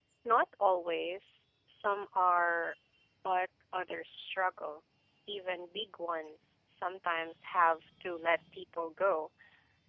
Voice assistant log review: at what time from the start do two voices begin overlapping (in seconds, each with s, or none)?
none